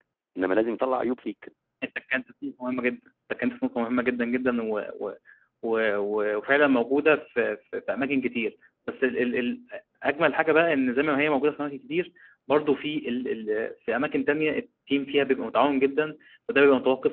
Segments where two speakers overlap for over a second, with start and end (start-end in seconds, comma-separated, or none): none